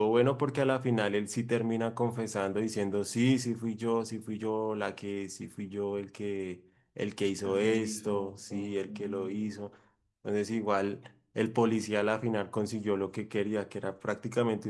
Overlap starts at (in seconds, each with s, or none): 7.4 s